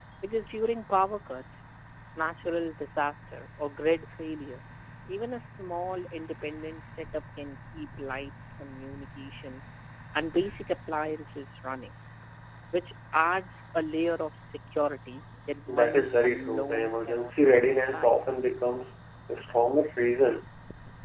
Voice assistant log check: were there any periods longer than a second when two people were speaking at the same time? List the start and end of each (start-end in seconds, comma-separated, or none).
15.7-18.1